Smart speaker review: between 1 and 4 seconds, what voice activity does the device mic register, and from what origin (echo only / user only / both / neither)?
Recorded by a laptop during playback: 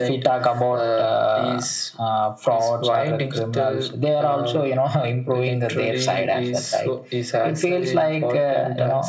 echo only